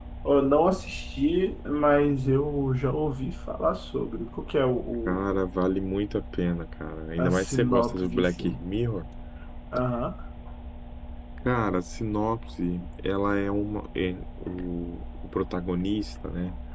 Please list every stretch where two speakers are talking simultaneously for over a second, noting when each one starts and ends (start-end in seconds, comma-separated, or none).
7.2-8.6